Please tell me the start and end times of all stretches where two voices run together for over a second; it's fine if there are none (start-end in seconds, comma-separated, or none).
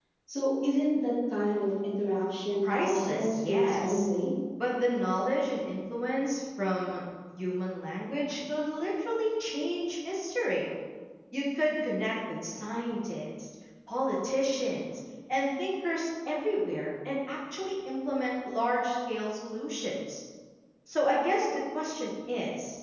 2.6-4.0